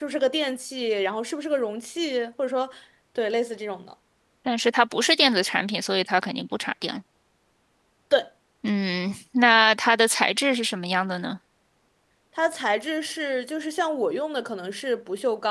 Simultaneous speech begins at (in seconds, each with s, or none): none